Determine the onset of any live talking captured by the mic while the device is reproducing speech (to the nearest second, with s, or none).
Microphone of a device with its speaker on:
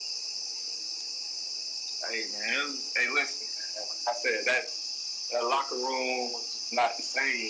none